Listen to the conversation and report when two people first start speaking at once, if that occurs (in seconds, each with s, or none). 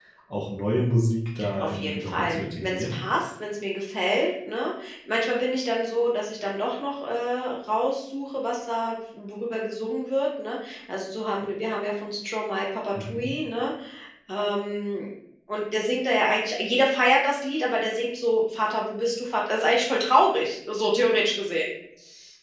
1.6 s